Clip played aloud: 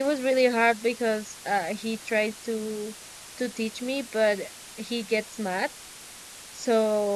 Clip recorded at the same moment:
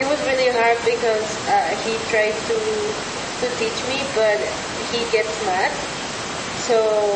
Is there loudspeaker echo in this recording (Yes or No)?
Yes